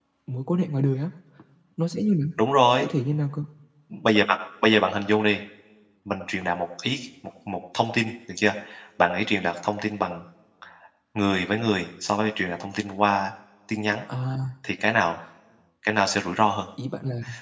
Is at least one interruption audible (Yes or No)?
No